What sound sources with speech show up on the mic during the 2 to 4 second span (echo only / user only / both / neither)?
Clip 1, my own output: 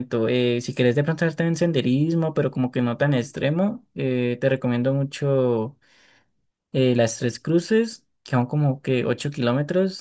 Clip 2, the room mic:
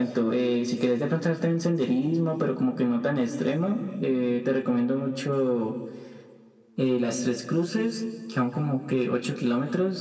echo only